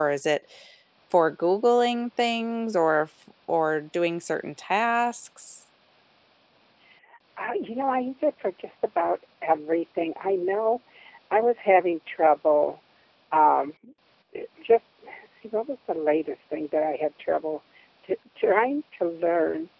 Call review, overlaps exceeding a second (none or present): none